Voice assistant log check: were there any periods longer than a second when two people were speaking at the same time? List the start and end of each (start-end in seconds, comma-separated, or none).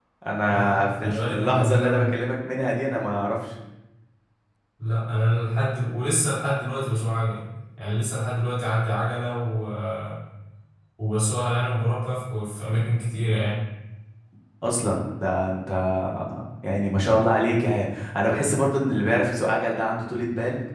0.5-2.1